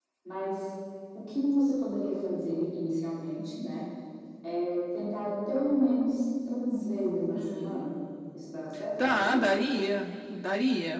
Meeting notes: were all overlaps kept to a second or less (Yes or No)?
Yes